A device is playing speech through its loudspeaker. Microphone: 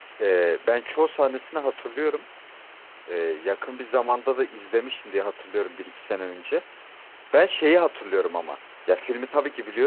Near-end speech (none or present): present